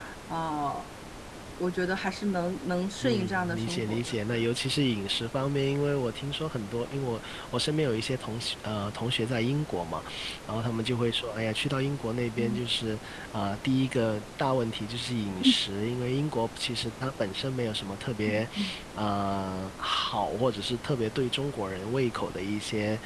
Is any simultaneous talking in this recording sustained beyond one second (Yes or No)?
Yes